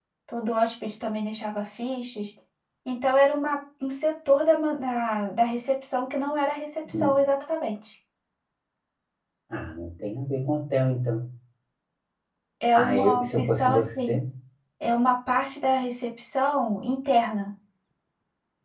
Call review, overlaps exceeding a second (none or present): present